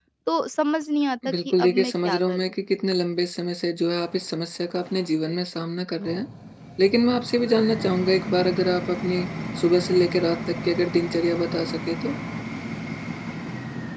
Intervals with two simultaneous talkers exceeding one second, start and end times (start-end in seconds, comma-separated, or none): 1.3-2.5